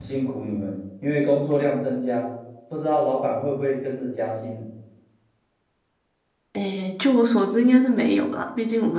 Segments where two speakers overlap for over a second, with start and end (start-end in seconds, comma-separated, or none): none